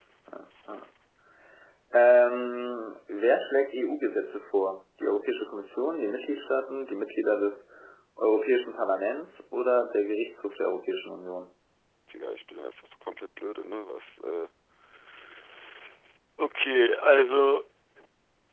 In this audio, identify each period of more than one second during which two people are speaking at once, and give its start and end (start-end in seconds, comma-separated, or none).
none